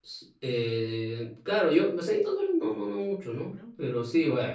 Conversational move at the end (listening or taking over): listening